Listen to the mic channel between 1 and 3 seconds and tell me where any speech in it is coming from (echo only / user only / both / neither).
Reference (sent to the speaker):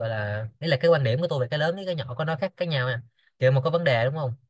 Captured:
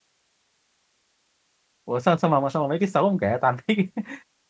user only